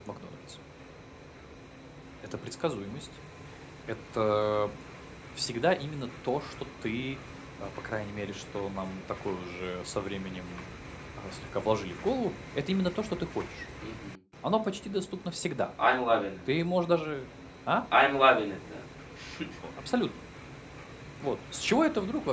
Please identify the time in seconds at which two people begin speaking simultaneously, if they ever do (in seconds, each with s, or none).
none